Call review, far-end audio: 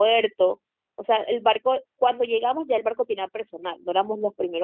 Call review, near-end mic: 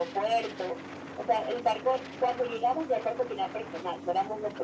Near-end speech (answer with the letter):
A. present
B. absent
B